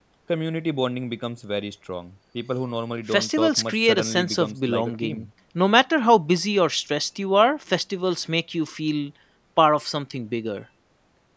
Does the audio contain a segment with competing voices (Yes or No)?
Yes